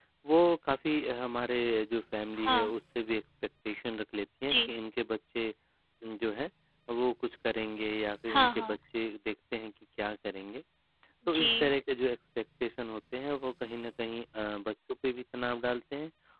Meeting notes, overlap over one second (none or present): none